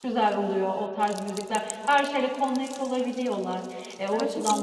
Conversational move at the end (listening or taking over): taking over